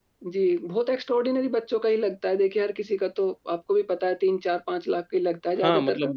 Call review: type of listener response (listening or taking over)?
taking over